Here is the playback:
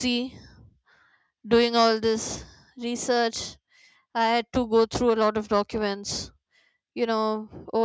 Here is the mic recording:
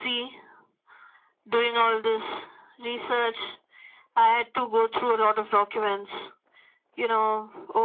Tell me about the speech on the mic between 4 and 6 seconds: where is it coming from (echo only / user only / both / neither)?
echo only